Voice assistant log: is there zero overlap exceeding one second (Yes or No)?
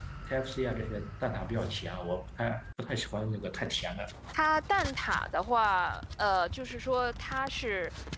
Yes